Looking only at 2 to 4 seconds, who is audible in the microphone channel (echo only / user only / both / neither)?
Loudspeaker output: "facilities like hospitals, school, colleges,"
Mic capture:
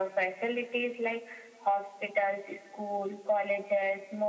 echo only